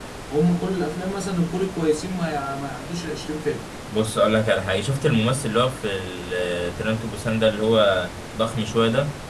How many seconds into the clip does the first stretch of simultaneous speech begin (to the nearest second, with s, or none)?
none